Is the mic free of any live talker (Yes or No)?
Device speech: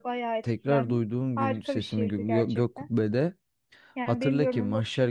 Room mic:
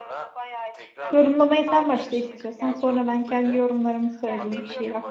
No